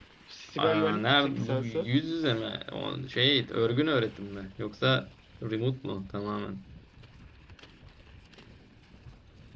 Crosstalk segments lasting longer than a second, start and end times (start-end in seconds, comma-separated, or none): 0.6-1.9